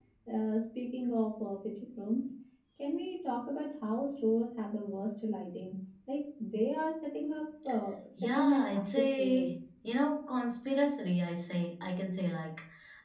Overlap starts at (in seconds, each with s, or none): 8.2 s